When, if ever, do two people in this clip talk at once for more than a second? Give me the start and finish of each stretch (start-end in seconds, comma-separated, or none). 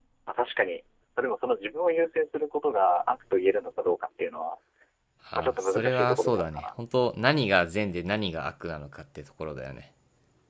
5.4-6.6